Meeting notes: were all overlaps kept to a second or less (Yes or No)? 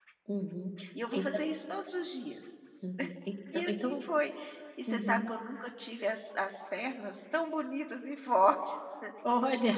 Yes